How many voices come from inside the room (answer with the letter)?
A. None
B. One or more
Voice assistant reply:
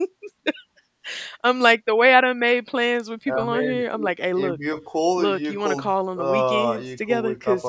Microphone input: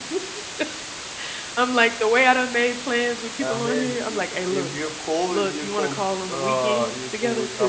A